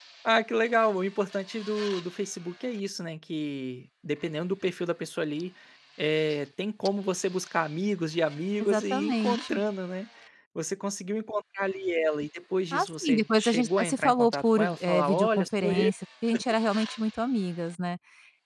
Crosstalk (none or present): present